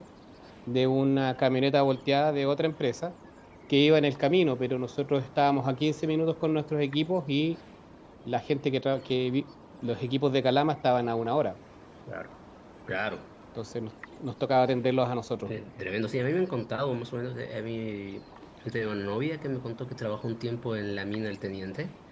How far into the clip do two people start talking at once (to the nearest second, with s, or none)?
none